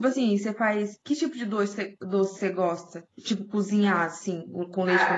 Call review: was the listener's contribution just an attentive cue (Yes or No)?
No